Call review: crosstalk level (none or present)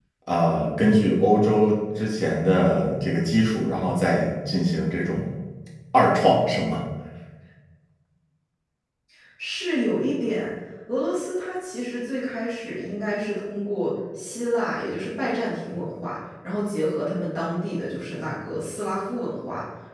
none